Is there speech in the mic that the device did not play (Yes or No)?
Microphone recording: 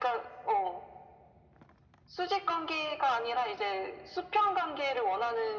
No